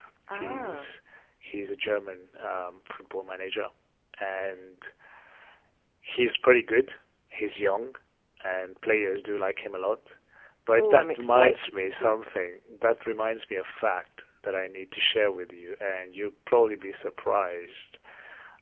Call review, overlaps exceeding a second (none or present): present